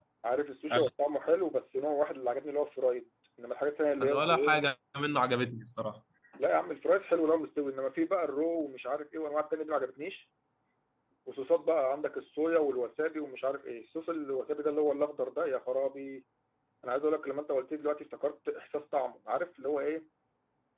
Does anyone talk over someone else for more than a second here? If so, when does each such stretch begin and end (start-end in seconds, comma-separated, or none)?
none